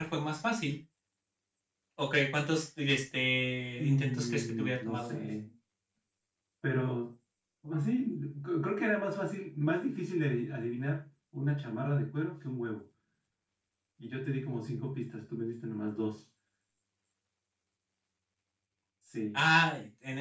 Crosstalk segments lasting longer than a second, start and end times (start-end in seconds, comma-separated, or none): 3.8-5.1